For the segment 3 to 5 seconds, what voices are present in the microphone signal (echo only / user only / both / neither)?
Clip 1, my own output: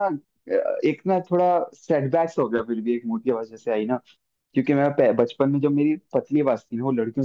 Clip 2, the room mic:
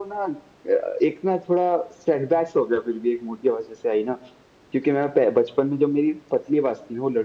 echo only